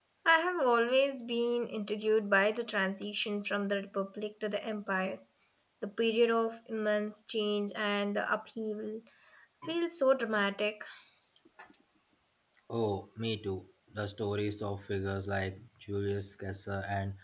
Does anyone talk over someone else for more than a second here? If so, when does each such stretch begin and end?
none

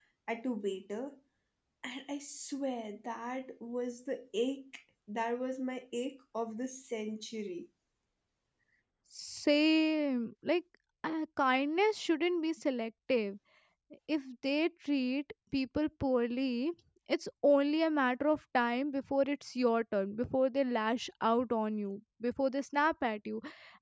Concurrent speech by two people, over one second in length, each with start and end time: none

